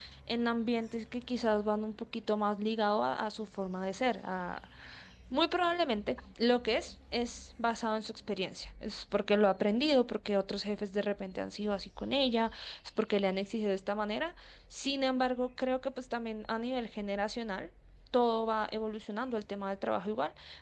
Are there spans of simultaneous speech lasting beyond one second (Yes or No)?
No